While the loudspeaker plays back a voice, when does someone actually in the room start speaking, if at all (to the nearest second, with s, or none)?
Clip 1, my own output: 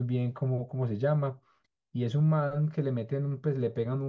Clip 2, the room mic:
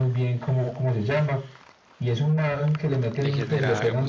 3 s